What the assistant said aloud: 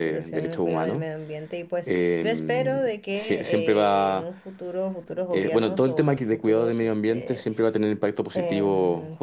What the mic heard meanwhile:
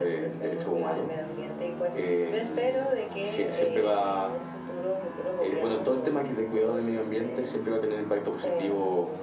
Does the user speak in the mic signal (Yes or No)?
No